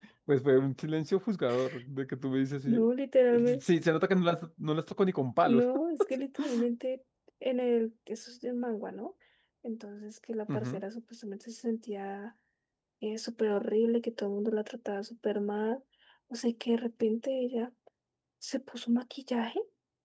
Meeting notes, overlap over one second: none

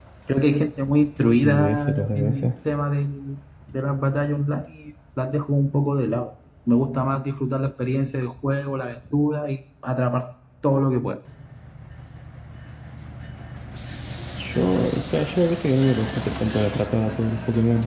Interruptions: present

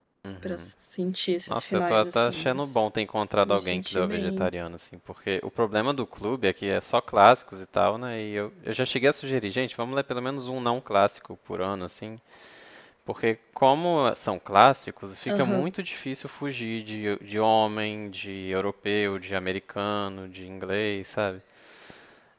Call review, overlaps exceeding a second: present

